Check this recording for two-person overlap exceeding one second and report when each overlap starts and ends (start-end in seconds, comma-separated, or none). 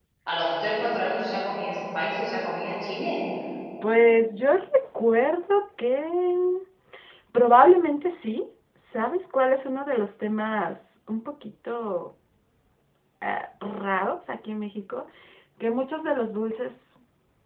none